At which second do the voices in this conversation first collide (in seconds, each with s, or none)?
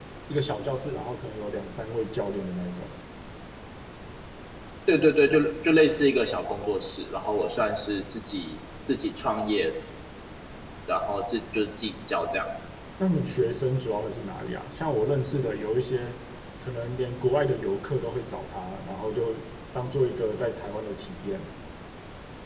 none